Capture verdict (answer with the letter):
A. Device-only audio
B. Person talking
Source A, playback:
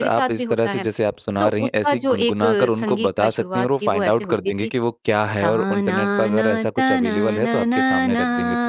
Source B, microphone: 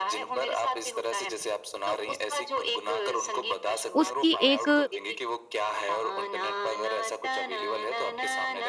B